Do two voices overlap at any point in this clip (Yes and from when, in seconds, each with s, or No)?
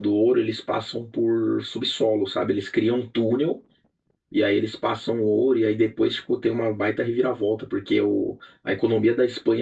No